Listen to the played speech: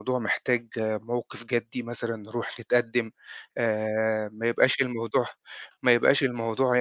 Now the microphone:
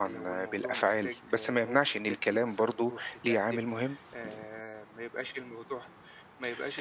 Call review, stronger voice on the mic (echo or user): user